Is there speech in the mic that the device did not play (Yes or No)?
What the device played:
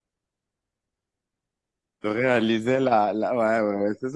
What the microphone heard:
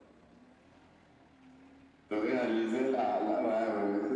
No